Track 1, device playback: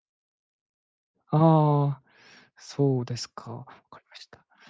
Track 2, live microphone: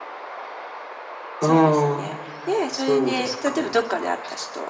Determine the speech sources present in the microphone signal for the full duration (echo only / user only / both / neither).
both